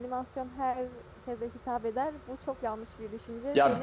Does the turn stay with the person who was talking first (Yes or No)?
No